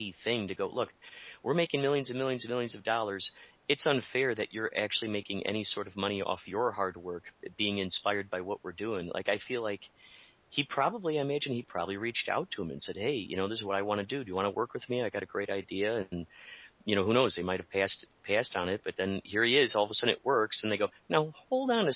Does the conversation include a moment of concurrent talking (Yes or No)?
No